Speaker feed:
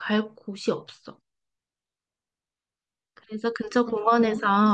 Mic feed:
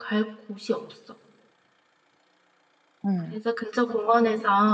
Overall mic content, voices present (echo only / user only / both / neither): both